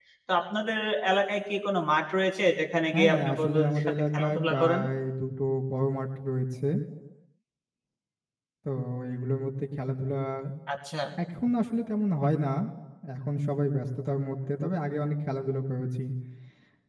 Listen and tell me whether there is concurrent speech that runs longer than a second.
Yes, from 2.9 s

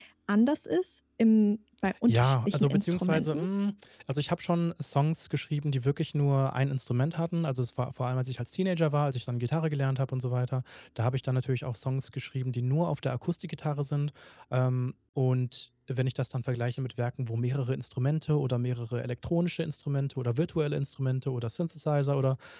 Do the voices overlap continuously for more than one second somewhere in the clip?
Yes, from 2.1 s

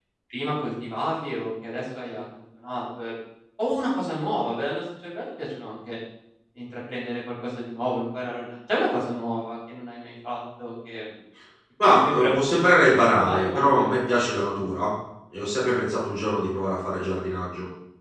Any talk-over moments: Yes, from 11.8 s

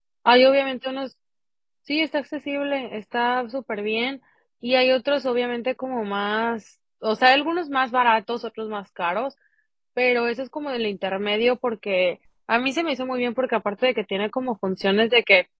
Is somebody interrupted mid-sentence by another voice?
No

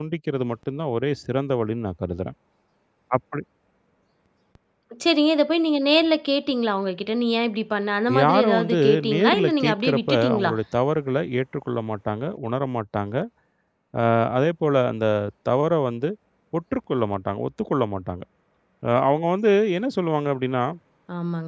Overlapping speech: Yes, from 8.1 s

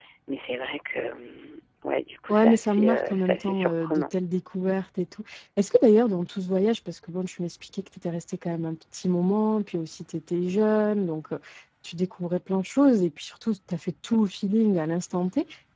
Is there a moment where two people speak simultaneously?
Yes, from 2.3 s

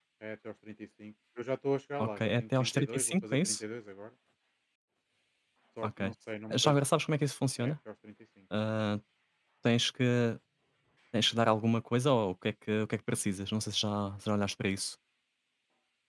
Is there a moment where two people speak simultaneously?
Yes, from 2.0 s

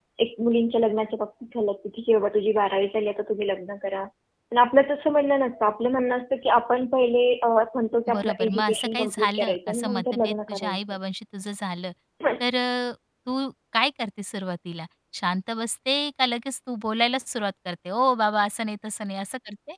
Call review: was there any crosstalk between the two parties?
Yes, from 8.1 s

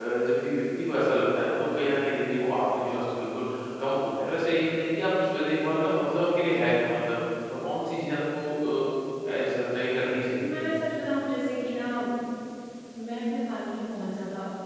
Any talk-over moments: No

